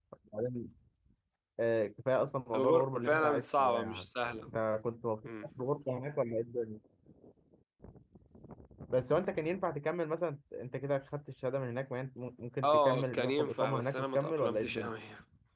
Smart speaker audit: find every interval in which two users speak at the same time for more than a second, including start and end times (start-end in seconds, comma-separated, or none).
2.5-4.1, 12.6-14.9